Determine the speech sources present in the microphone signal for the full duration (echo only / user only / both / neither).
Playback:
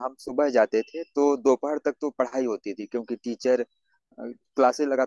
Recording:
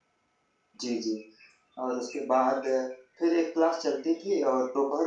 user only